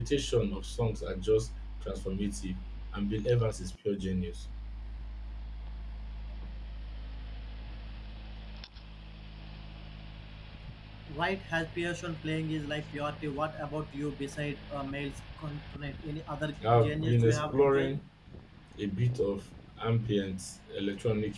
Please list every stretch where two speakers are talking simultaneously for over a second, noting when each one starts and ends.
16.7-18.0

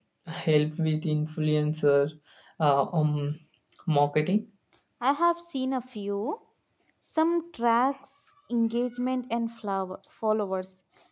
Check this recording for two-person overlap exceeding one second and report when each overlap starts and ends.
none

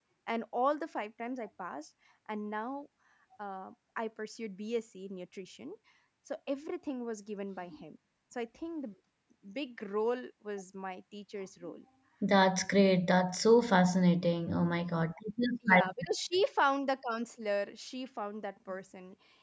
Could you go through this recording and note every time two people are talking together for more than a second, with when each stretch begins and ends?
none

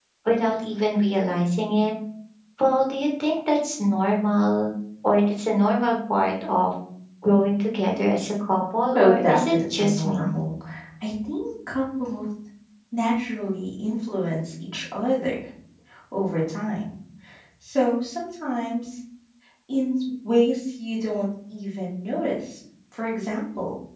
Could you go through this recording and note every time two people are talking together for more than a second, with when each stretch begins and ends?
9.0-10.3

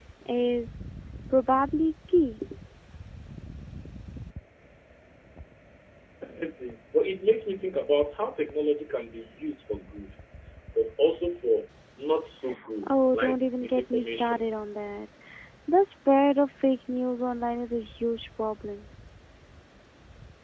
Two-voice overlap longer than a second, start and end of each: 12.9-14.6

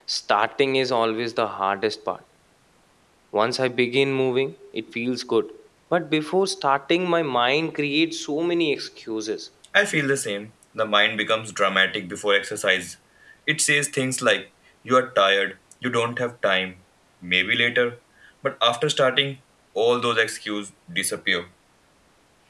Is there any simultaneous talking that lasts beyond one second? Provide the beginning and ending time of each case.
none

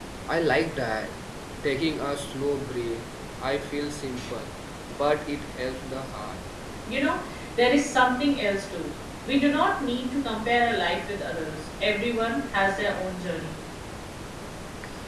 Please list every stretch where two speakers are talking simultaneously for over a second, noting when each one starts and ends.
none

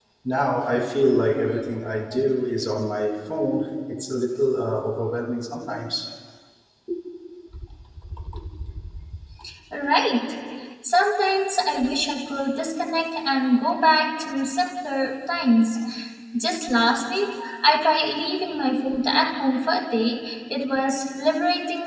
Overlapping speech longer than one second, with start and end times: none

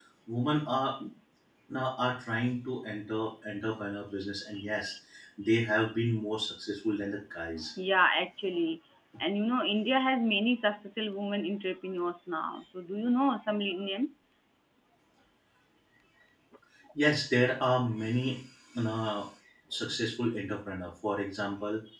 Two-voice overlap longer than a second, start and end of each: none

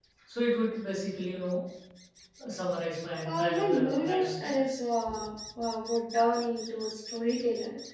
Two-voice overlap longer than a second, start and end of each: 3.2-4.6

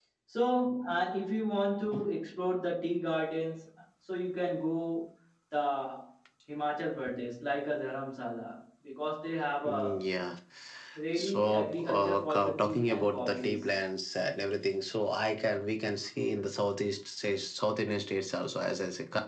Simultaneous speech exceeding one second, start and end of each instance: 11.2-13.7

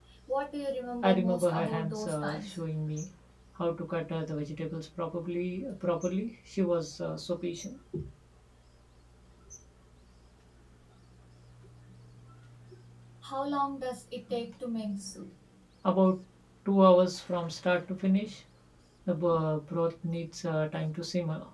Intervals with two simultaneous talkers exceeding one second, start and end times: 1.0-2.6

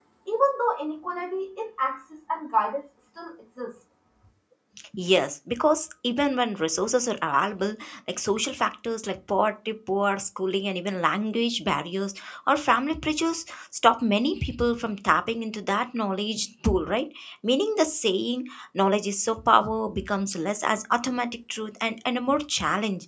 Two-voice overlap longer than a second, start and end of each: none

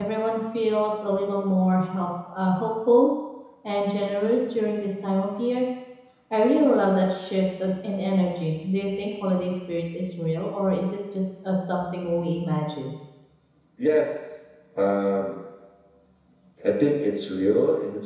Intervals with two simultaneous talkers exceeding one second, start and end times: none

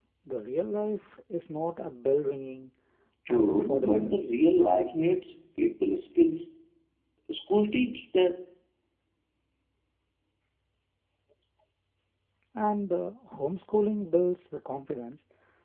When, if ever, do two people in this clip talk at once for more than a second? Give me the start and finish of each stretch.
3.3-5.0

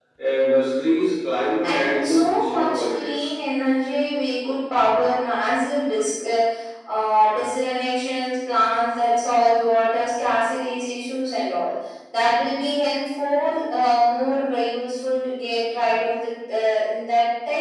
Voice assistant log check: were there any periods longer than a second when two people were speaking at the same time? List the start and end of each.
1.6-3.3

